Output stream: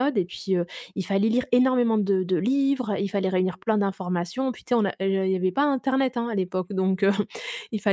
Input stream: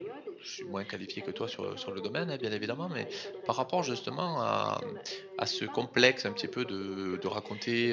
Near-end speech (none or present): present